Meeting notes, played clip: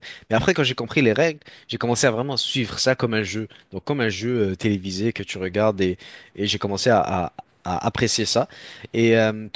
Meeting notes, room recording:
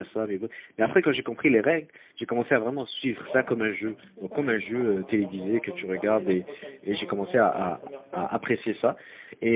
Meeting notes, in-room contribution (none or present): present